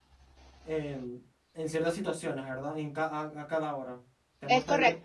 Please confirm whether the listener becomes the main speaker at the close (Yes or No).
No